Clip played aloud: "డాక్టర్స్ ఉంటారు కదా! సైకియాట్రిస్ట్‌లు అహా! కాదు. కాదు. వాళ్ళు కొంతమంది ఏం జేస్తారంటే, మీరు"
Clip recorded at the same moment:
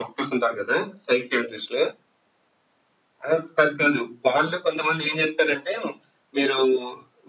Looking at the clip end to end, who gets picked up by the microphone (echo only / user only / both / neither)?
echo only